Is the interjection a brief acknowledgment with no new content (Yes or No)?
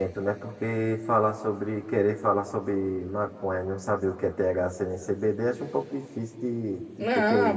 No